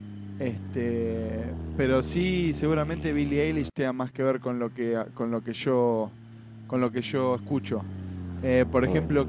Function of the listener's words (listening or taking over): listening